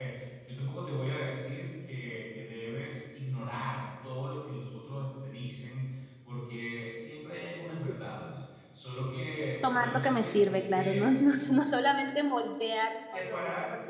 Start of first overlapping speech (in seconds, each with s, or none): 9.6 s